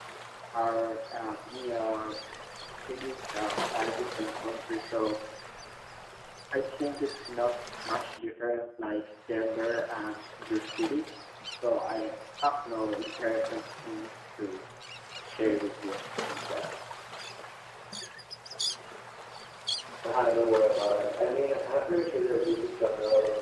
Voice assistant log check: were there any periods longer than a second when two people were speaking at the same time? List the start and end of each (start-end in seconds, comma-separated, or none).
none